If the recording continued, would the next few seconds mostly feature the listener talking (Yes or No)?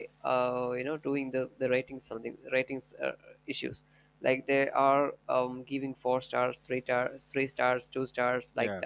No